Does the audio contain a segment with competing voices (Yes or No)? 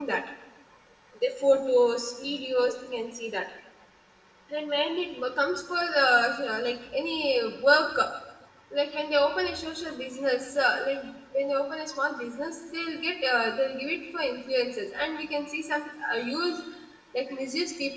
No